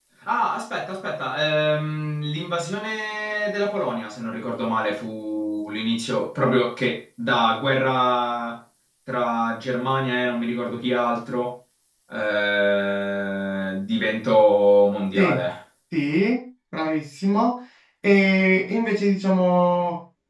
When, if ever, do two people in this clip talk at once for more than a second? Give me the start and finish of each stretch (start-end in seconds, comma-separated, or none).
none